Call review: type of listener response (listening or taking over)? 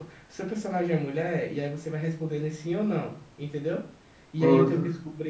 listening